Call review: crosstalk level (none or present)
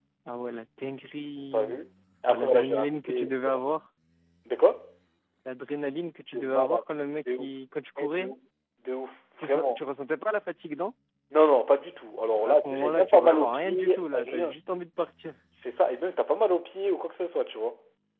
present